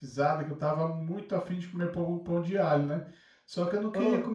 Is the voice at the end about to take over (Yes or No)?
No